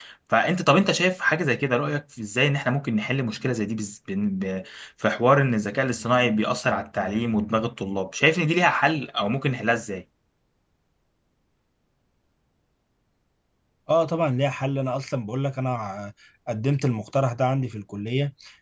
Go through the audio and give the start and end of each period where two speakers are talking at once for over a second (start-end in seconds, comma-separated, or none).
none